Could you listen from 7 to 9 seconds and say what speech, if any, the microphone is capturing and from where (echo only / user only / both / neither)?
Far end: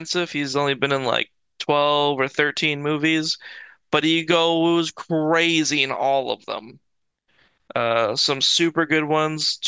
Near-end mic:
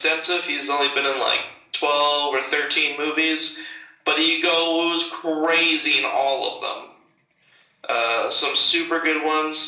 echo only